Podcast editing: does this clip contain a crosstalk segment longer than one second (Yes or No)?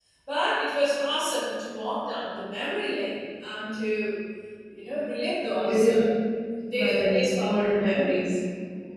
Yes